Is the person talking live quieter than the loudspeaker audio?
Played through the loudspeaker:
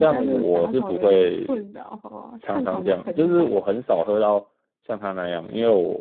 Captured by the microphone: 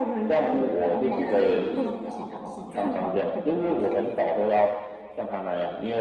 Yes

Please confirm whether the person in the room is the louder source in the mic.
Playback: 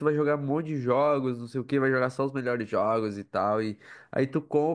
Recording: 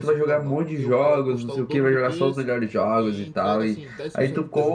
No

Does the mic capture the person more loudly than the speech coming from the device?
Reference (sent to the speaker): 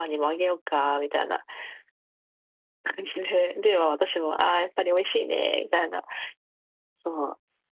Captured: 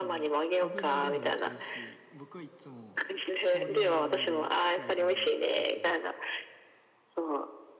No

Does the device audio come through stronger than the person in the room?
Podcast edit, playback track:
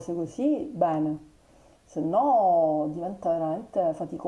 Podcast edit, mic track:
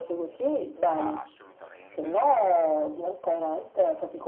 Yes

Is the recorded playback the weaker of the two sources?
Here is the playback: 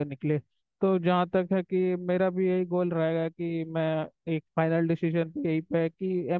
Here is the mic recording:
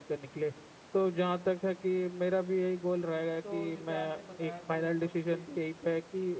No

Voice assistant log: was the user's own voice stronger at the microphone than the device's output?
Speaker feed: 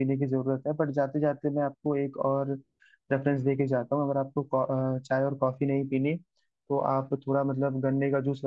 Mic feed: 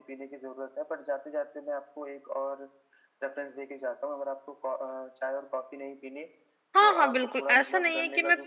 Yes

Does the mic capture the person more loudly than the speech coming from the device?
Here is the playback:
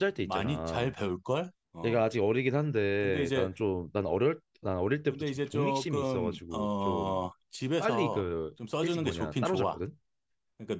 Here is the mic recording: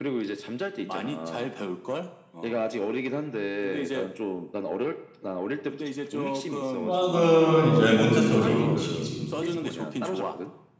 Yes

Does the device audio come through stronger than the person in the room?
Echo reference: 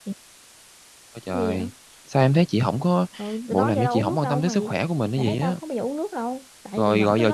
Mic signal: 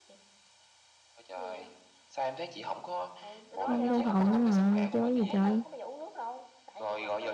No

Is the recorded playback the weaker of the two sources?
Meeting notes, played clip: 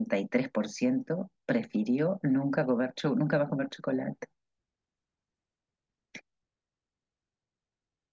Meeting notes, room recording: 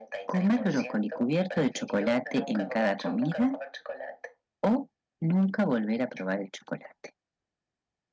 Yes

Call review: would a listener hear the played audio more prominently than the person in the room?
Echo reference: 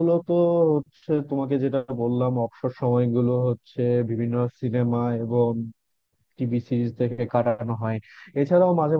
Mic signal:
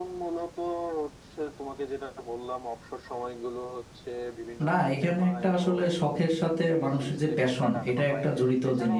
No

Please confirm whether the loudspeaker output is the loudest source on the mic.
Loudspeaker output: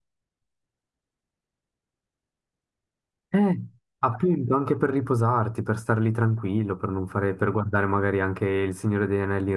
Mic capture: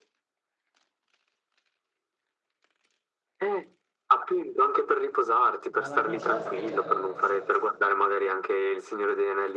Yes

